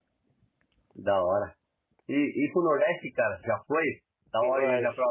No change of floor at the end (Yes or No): No